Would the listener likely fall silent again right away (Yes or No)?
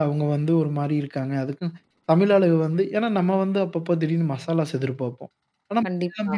Yes